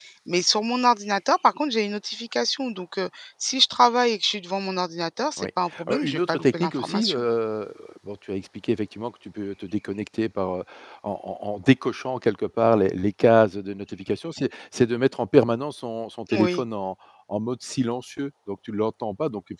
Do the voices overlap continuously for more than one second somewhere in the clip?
Yes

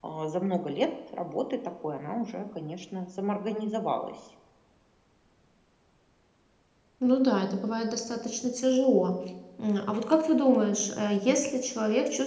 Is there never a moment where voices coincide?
Yes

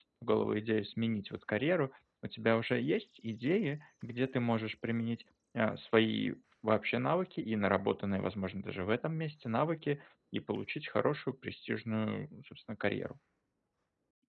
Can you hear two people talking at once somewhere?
No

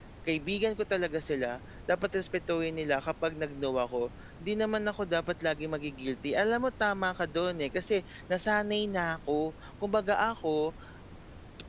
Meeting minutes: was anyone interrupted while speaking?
No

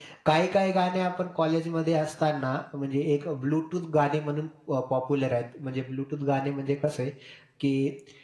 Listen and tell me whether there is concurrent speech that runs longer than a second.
No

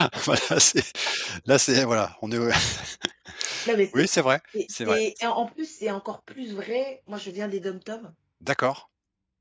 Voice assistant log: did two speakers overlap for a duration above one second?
No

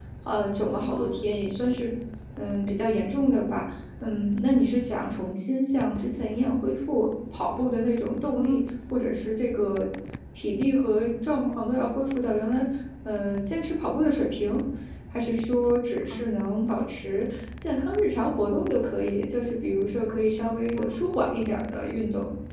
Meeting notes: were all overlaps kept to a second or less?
Yes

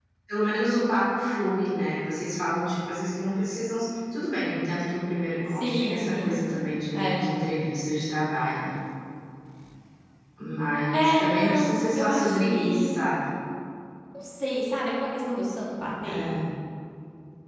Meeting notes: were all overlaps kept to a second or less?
No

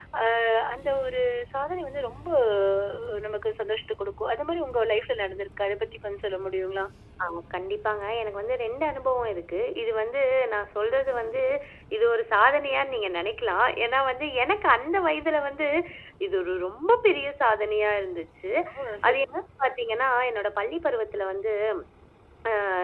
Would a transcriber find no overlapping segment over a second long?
Yes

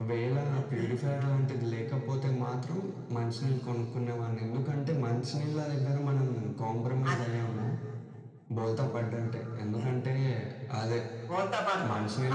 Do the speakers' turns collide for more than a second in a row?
No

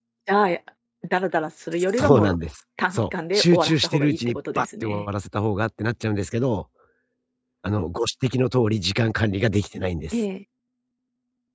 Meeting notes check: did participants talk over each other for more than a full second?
Yes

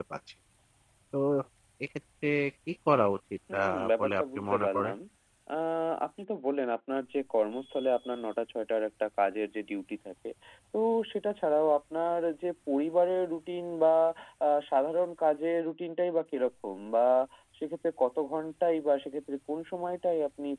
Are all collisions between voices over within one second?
No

